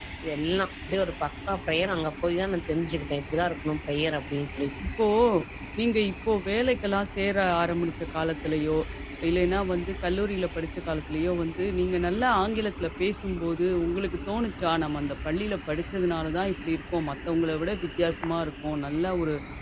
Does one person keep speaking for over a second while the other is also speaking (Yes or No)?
No